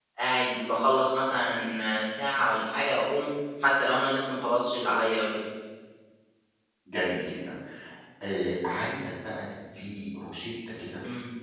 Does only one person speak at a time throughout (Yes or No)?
Yes